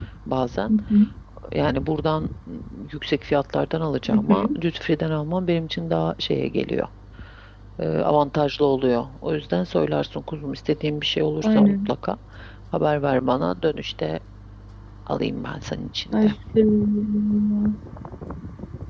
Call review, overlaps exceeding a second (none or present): none